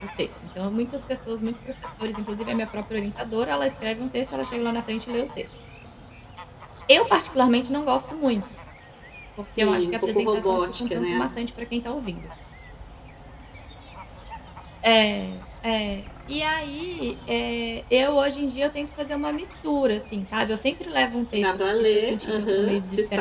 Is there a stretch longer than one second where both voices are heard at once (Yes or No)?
Yes